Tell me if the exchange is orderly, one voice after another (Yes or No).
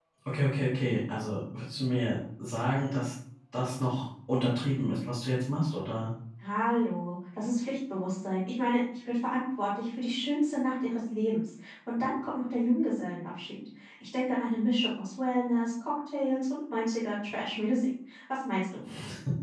Yes